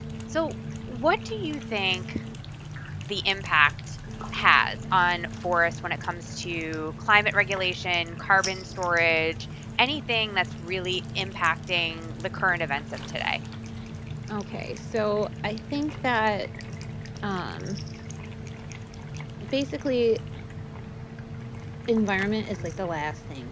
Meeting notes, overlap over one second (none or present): none